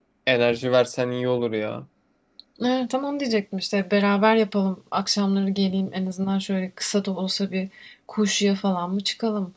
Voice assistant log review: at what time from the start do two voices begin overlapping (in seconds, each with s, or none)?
none